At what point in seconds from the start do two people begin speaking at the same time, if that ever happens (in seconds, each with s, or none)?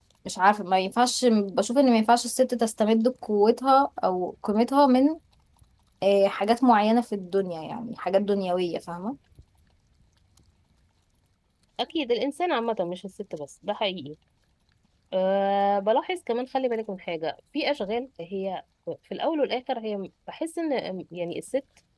none